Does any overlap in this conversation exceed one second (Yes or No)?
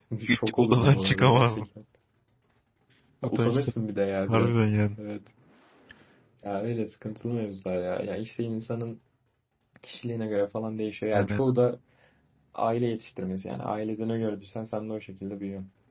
Yes